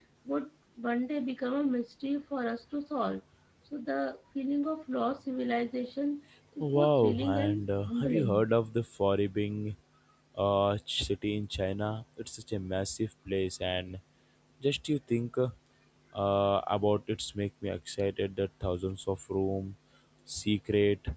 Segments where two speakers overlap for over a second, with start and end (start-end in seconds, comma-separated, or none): 6.6-8.4